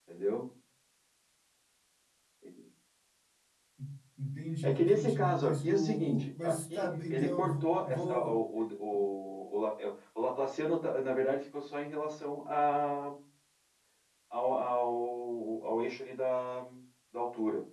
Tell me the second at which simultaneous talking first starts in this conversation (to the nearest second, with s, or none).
5 s